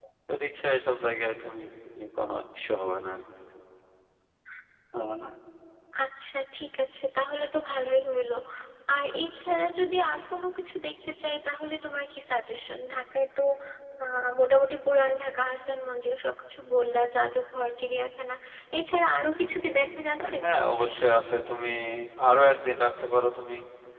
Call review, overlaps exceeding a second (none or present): none